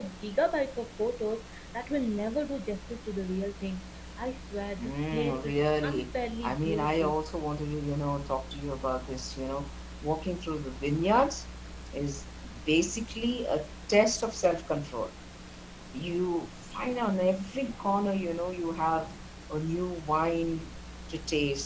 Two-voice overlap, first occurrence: 4.8 s

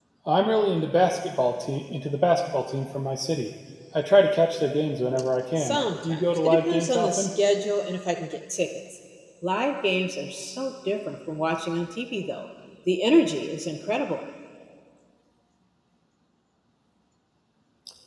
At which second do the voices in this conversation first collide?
5.6 s

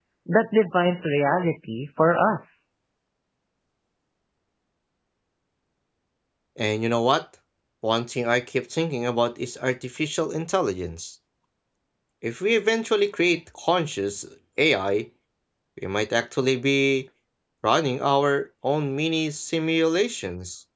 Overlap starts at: none

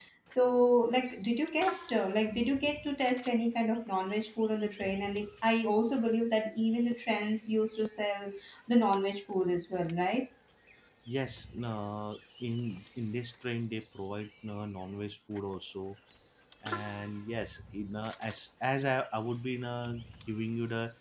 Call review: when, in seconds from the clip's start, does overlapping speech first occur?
none

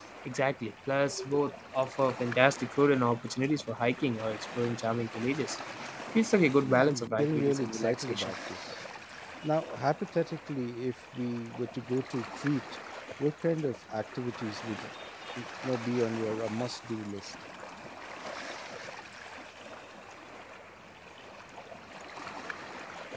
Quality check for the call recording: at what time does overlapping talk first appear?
6.6 s

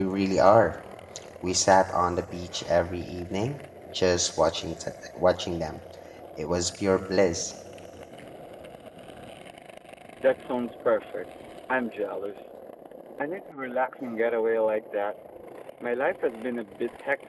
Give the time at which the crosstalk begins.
none

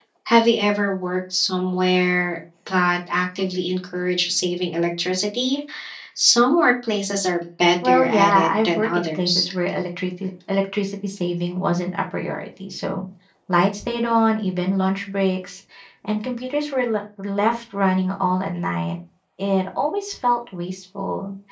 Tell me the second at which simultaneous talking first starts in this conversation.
7.8 s

